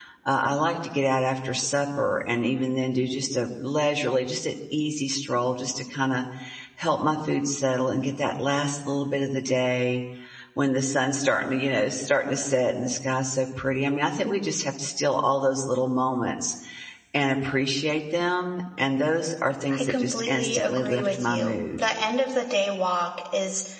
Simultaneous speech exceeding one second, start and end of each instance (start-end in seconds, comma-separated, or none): 19.8-21.8